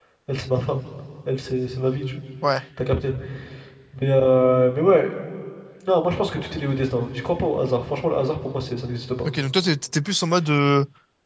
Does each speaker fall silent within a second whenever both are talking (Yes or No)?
Yes